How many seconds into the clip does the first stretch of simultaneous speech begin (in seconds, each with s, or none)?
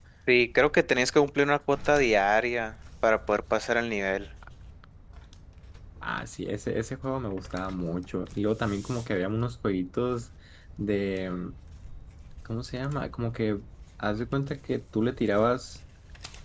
none